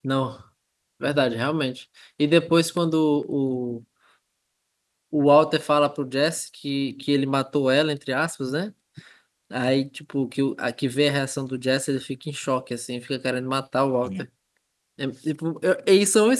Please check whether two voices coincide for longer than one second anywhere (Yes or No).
No